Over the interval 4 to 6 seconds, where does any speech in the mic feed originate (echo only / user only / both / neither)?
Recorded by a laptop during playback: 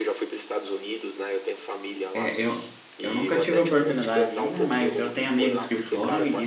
both